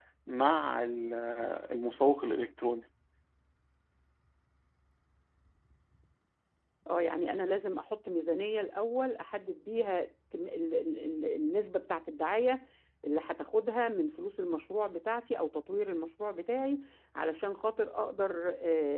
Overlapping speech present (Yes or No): No